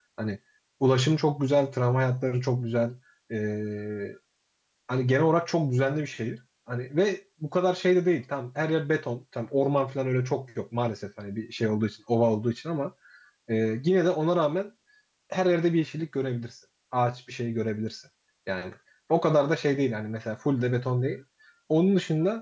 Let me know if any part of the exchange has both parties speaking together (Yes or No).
No